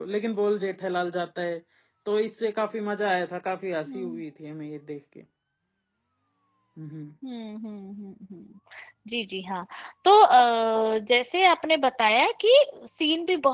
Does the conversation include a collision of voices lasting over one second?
No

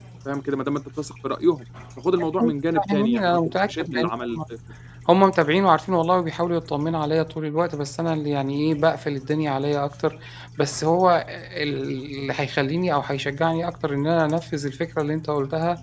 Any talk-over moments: Yes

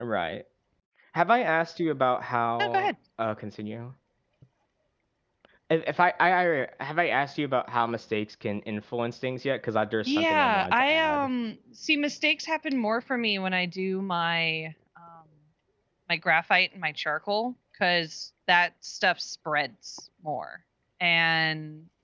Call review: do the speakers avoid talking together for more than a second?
No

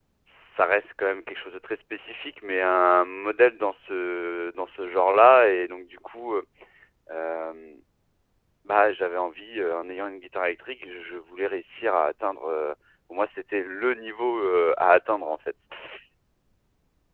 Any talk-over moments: No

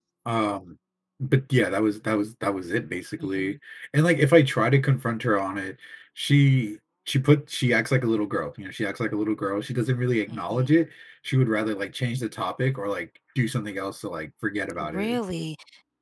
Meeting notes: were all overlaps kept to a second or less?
Yes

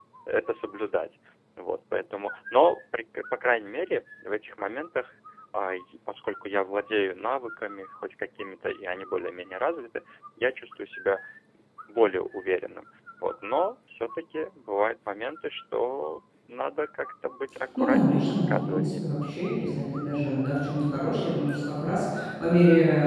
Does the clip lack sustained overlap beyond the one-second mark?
No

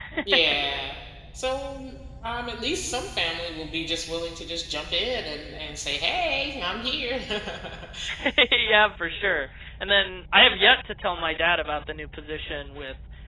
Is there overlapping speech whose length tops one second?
No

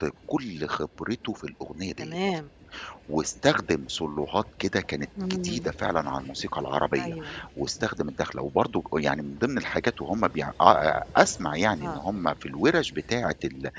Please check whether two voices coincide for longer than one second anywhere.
No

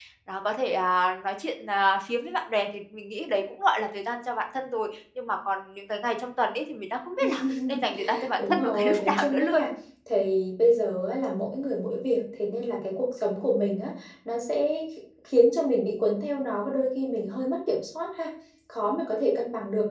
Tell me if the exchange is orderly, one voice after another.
No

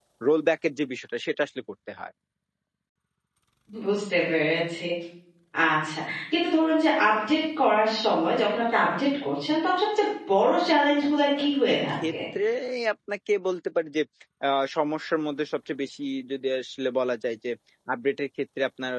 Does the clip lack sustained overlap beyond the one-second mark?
Yes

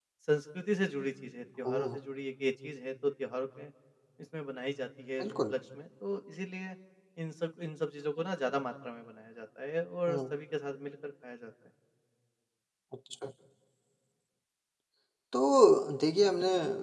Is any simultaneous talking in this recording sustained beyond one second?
No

